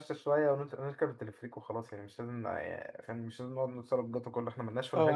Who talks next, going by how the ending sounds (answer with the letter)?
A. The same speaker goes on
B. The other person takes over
B